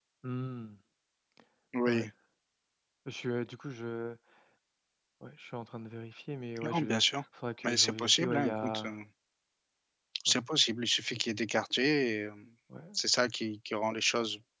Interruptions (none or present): present